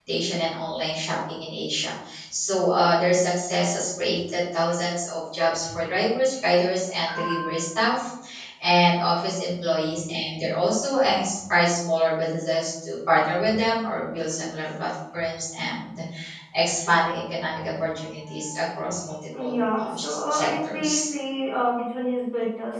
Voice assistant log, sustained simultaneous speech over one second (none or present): present